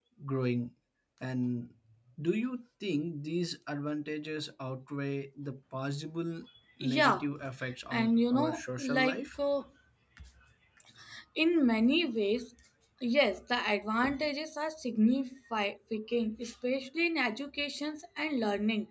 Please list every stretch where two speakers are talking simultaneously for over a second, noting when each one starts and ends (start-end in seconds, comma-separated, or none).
7.9-9.4